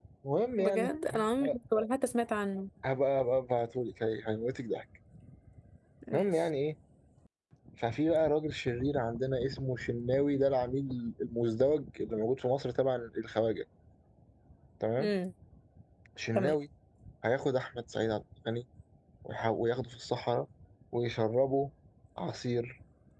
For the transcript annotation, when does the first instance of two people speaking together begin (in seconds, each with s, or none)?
0.6 s